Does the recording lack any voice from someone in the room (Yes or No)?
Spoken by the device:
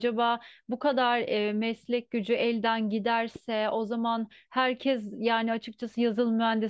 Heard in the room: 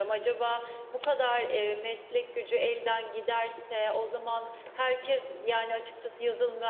Yes